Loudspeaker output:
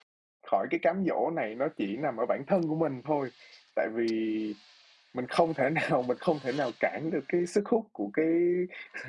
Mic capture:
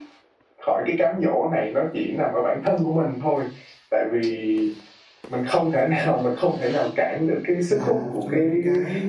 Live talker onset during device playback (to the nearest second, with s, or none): 8 s